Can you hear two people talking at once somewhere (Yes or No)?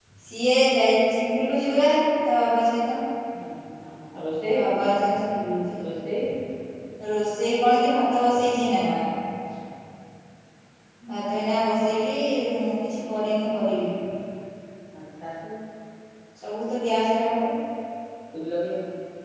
No